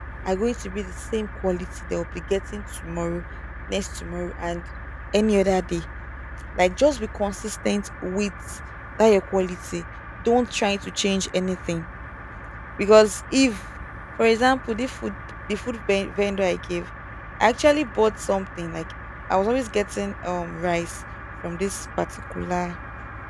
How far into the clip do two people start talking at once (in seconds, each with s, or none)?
none